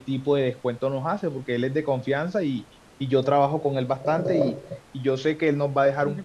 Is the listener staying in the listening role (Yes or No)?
Yes